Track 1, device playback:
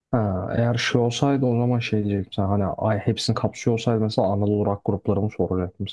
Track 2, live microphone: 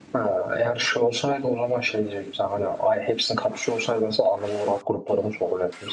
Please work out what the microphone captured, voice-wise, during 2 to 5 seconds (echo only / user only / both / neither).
echo only